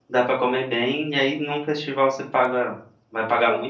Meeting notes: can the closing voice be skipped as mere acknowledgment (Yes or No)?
Yes